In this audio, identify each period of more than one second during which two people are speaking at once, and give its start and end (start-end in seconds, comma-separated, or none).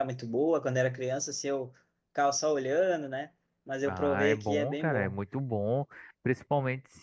3.8-5.2